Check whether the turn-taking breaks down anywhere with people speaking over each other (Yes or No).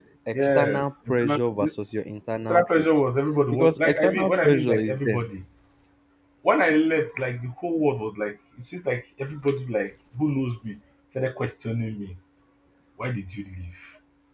Yes